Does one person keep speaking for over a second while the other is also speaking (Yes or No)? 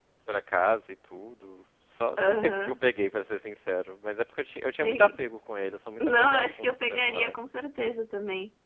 Yes